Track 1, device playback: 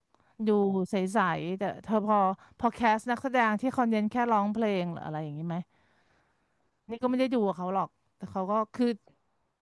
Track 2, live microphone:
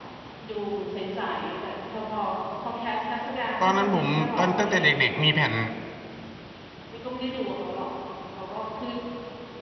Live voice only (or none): ตอนนั้นผมตอนตั้งแต่เด็กๆมีแผ่น